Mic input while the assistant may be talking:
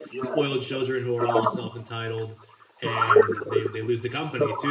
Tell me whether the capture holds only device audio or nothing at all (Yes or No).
No